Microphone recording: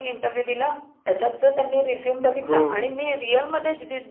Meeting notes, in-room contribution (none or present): present